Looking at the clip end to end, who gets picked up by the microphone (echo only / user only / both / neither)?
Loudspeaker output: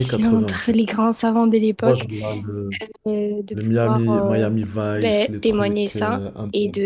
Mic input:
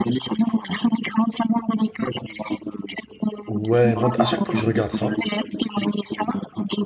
both